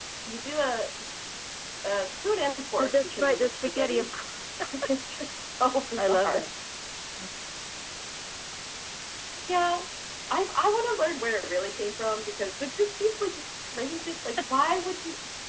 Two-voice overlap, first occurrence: 2.8 s

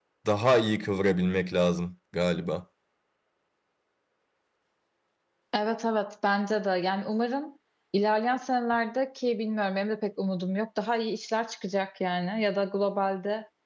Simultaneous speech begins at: none

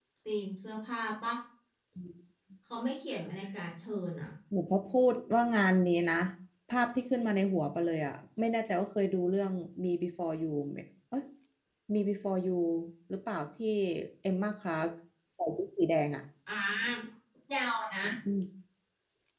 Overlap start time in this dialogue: none

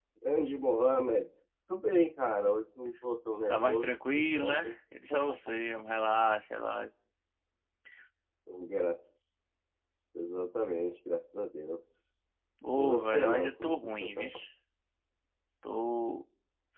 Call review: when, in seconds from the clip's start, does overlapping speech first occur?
3.5 s

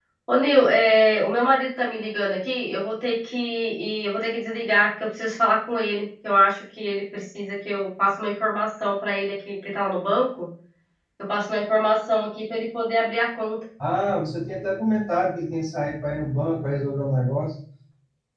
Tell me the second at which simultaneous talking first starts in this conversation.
none

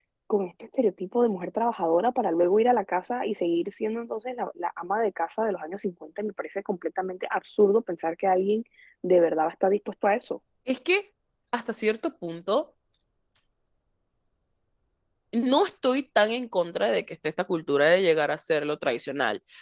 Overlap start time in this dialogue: none

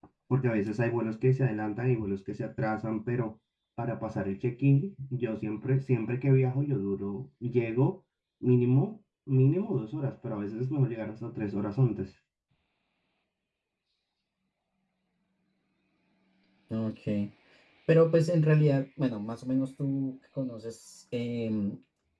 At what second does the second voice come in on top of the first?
none

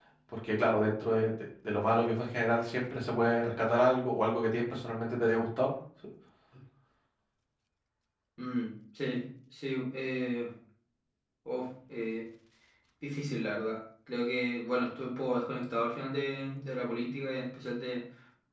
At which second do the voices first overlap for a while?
none

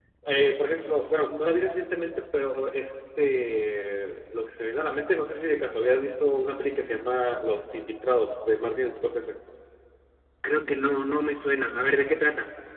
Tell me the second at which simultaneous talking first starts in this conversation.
none

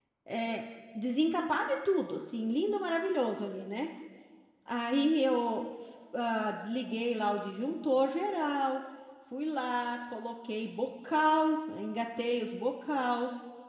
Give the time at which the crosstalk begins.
none

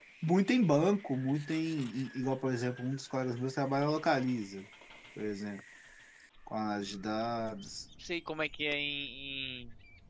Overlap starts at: none

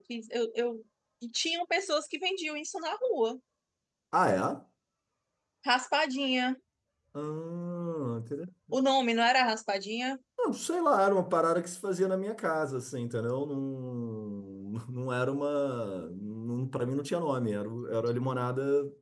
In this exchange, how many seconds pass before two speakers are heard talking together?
none

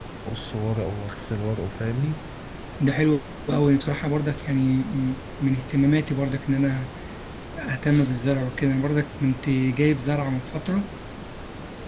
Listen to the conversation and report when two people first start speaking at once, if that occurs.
none

